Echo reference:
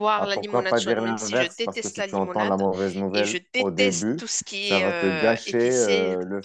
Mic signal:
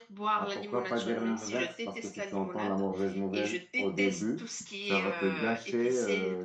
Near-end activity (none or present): none